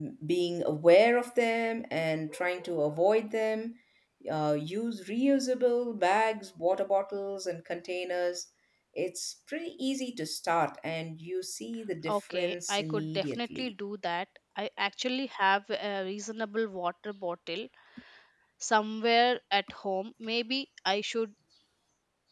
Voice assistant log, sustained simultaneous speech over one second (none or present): present